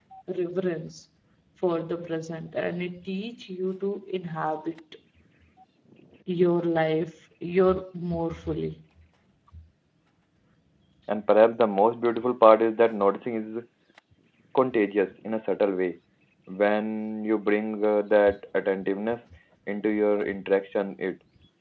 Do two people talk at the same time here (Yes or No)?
No